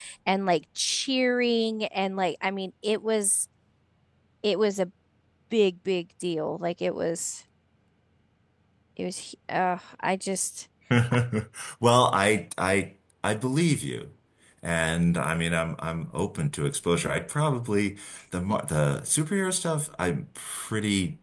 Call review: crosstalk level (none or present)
none